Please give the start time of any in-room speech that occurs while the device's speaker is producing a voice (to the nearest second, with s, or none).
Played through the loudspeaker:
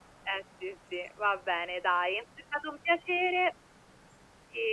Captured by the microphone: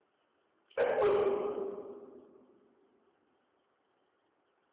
1 s